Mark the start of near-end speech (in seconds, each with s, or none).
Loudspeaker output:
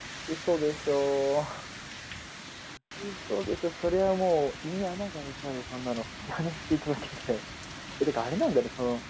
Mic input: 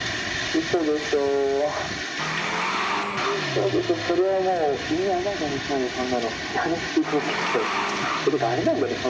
none